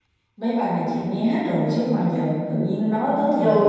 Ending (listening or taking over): taking over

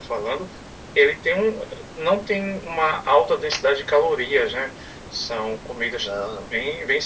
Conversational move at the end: listening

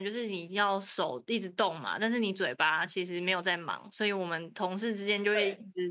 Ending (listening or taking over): listening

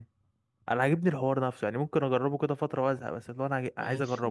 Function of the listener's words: taking over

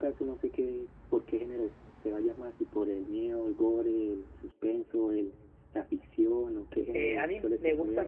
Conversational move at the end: taking over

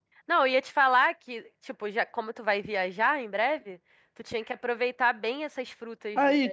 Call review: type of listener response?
taking over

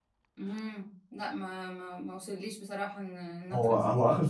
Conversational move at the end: taking over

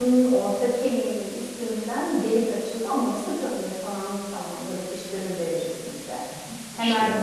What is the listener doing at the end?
listening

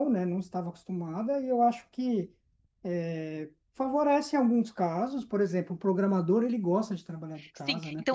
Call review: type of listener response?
taking over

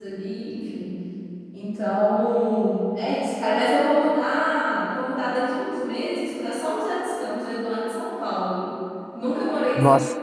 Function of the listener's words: listening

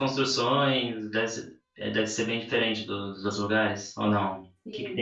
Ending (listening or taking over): taking over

